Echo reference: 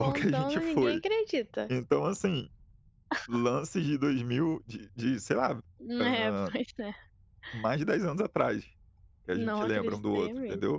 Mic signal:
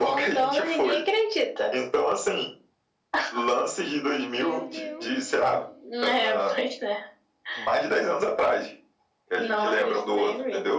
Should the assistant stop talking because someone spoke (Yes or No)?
Yes